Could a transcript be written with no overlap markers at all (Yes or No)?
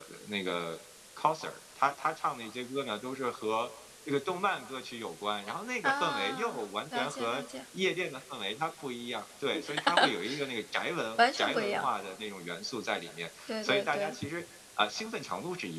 No